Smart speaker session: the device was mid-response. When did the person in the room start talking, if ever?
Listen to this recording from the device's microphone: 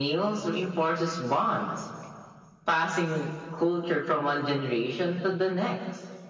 none

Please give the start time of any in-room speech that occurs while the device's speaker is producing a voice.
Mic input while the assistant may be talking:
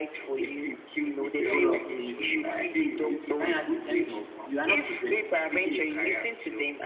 1 s

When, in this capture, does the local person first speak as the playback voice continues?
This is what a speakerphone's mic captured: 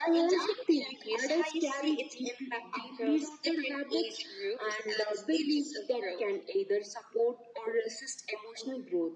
none

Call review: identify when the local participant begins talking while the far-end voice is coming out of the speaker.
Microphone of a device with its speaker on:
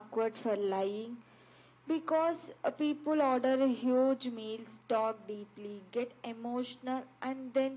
none

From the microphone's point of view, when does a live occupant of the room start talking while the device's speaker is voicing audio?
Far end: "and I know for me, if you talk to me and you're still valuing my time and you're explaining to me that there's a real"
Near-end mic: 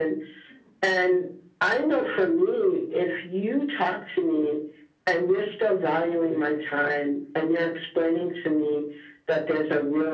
none

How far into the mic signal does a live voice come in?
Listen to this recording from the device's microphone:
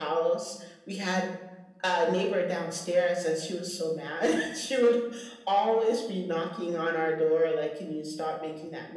none

